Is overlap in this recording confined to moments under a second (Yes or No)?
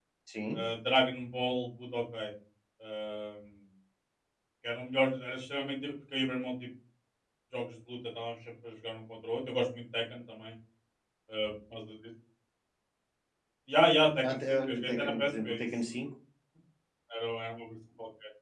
No